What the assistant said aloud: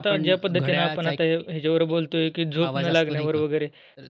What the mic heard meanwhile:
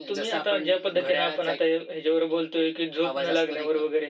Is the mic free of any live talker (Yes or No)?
Yes